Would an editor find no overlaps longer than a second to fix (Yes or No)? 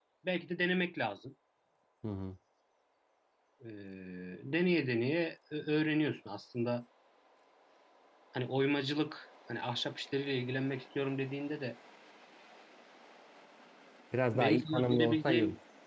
No